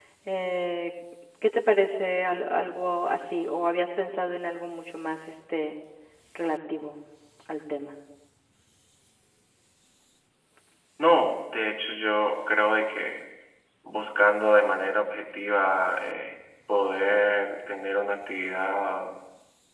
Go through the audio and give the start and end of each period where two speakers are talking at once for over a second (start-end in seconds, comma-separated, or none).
none